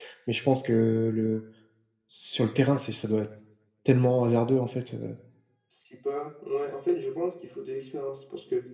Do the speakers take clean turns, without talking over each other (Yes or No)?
Yes